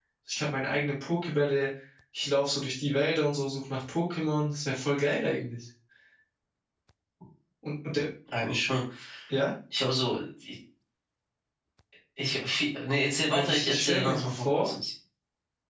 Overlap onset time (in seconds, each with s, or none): 13.3 s